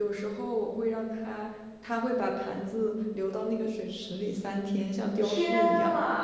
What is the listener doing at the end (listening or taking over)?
taking over